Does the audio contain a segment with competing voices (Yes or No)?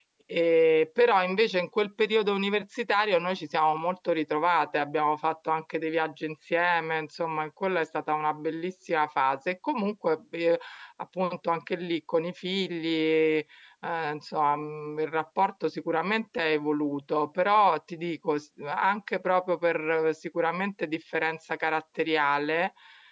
No